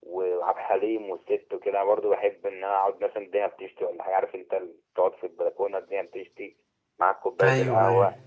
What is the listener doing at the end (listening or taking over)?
listening